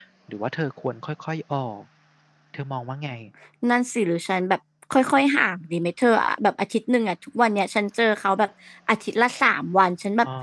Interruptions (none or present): none